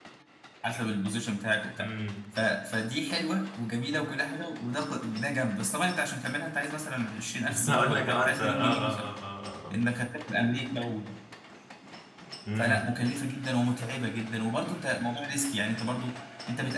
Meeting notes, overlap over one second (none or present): present